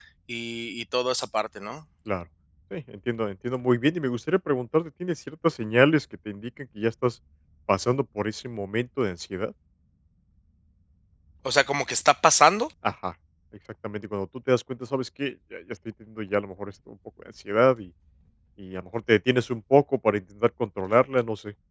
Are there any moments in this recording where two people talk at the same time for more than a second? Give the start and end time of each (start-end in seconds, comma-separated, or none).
none